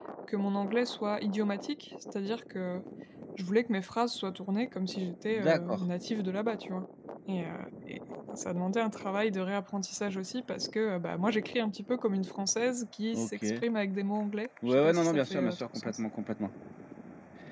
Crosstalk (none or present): present